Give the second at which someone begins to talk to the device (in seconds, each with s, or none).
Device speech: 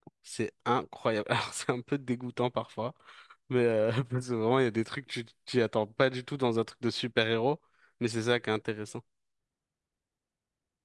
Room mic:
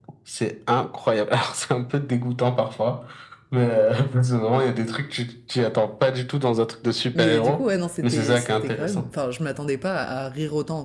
7.2 s